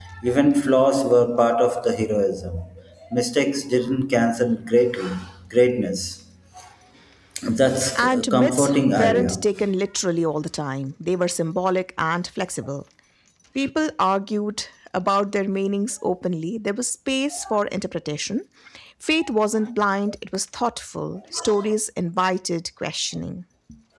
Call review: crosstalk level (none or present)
present